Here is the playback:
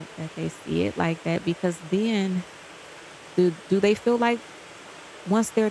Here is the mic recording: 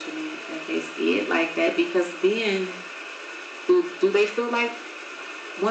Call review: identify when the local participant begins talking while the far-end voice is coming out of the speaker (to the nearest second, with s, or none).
none